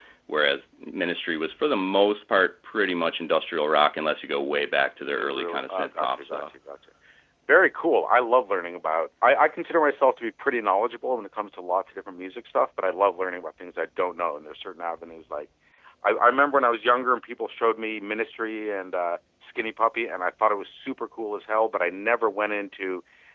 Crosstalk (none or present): present